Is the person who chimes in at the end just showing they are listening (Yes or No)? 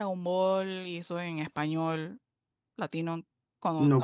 No